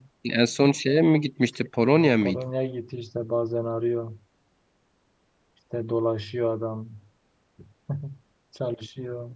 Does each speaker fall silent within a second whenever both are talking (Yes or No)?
Yes